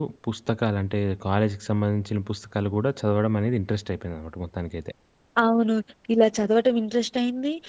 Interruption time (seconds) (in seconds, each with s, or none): none